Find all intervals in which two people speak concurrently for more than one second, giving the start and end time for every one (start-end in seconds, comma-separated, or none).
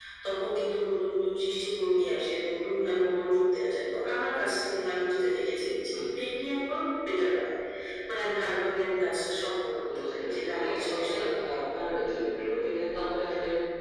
10.0-11.4